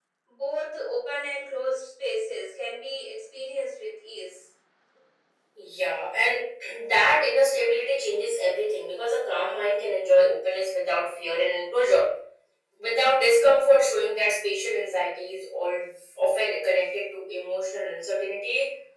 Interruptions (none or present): none